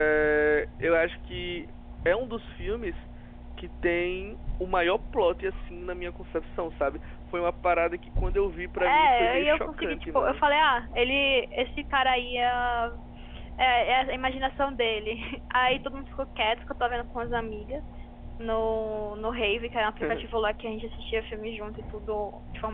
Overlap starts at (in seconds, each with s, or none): 8.8 s